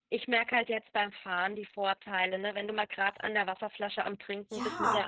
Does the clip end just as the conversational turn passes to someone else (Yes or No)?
Yes